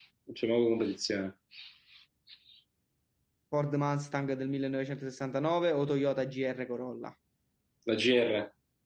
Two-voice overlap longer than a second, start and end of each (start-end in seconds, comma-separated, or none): none